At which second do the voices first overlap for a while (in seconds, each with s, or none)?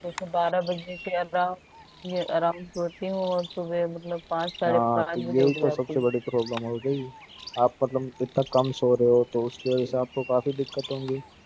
4.6 s